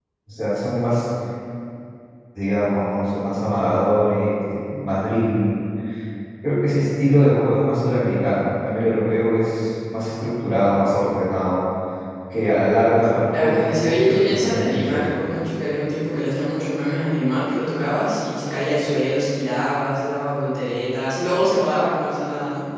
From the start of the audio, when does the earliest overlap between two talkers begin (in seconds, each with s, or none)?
13.3 s